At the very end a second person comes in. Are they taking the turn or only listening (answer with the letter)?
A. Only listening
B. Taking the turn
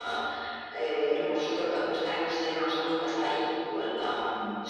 B